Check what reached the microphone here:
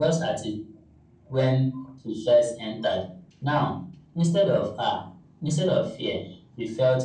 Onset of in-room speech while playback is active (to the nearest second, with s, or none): none